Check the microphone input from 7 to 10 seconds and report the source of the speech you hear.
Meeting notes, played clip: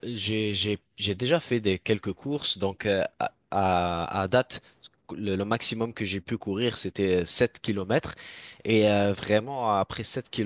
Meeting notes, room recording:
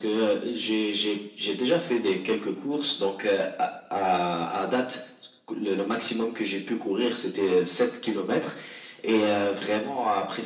echo only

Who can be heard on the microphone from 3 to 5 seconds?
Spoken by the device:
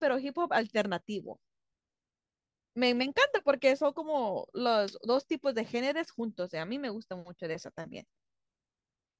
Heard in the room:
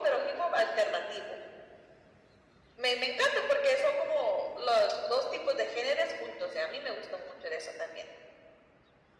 echo only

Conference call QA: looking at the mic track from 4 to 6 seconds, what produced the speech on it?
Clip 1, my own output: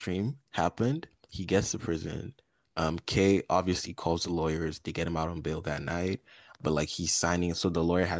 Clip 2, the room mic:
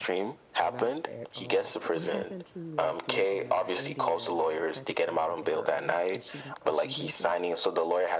both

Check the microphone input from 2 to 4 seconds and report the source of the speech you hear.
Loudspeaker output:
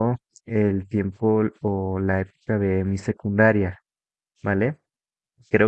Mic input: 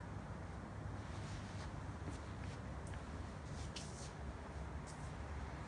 neither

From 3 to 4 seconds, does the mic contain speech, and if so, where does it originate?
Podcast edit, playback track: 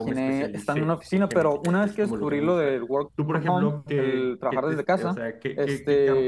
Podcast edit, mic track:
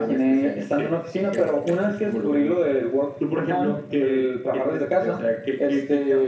echo only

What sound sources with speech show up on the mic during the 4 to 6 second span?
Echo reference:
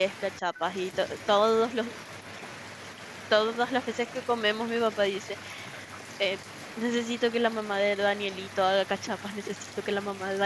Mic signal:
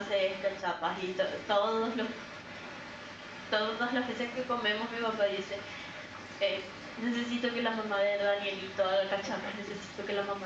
echo only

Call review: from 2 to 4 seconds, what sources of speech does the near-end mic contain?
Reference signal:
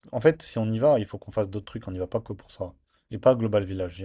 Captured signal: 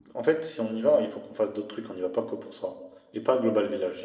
echo only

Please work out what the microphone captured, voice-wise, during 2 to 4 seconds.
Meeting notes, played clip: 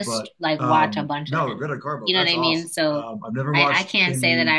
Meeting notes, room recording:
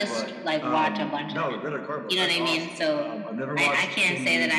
echo only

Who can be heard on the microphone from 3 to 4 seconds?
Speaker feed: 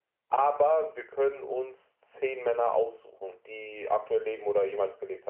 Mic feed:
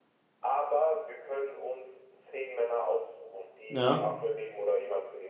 both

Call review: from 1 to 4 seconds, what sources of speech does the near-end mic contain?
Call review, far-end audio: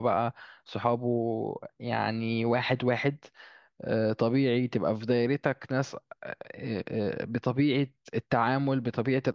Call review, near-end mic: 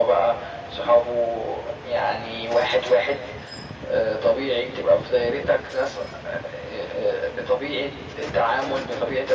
echo only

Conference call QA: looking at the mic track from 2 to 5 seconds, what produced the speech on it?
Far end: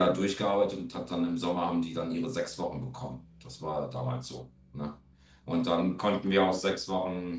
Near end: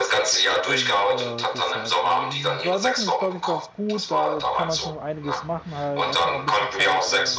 both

